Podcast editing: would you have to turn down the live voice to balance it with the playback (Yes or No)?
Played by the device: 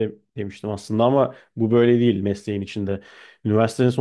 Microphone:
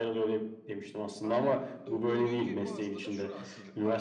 No